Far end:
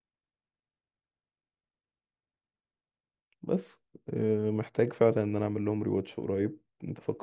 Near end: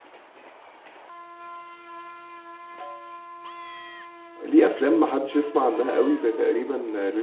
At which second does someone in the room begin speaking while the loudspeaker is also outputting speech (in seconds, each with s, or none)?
4.4 s